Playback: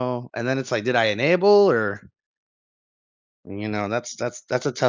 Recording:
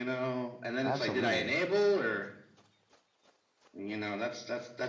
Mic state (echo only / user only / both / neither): both